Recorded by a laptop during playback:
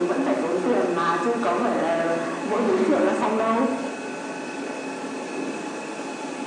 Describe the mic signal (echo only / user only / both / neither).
echo only